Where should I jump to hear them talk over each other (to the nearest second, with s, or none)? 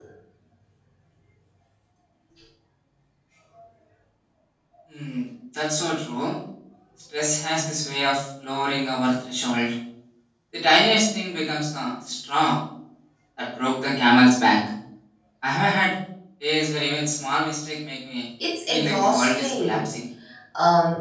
19 s